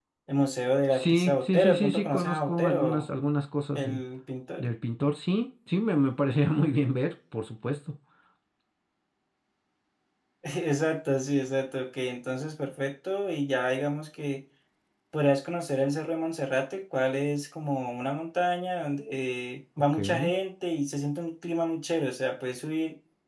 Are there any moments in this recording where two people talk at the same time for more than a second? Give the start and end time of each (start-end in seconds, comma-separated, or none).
0.9-3.1